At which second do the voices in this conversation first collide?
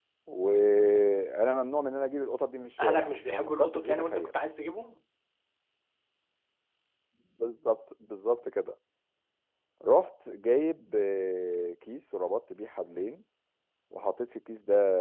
2.8 s

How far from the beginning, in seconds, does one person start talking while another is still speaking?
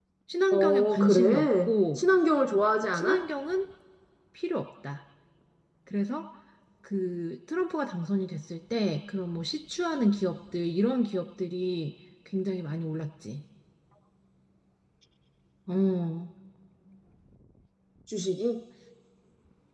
0.5 s

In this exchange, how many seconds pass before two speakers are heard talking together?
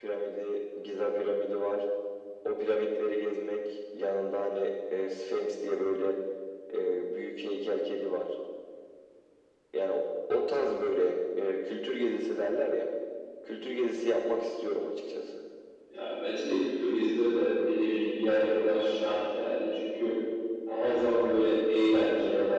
none

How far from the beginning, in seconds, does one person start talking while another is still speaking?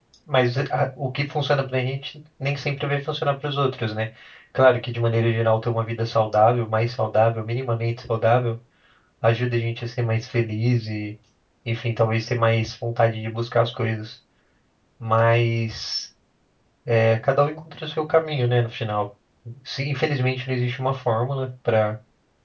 none

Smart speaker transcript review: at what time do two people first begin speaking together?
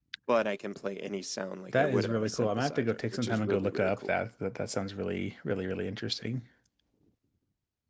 1.7 s

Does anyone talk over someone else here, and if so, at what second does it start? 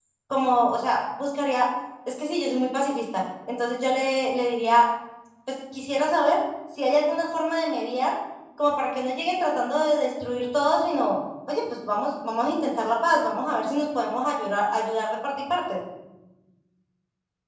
none

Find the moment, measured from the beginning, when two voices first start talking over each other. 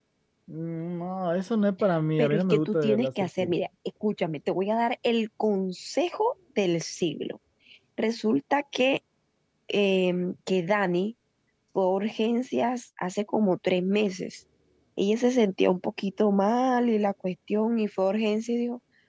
2.2 s

